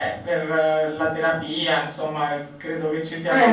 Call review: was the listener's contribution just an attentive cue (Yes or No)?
Yes